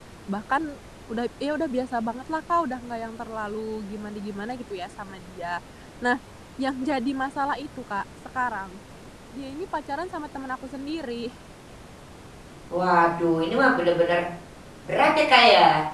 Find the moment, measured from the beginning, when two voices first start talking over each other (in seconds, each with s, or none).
none